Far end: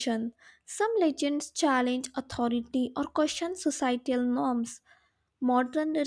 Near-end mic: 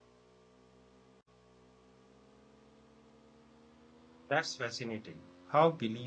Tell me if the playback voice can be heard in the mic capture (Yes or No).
No